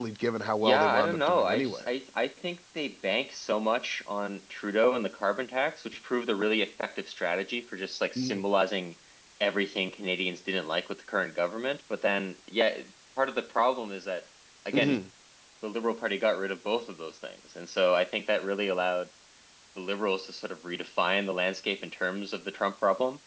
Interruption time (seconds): 0.6 s

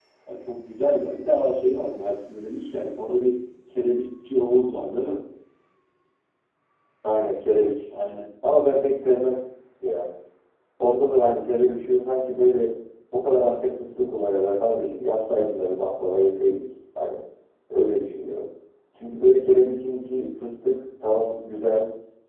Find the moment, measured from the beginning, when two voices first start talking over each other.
none

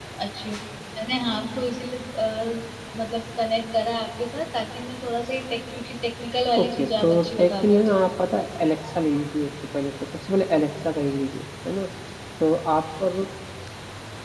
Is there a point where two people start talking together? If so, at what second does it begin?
6.6 s

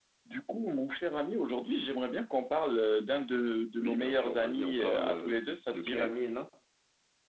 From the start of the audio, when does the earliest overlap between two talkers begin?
3.8 s

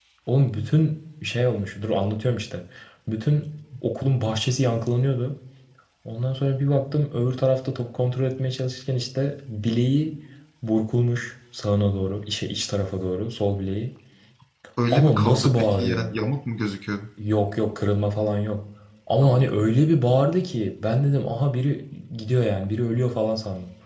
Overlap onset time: 14.9 s

